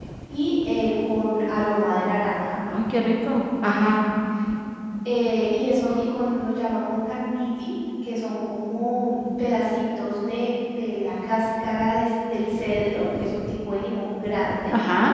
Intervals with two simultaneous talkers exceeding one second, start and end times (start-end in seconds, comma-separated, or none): none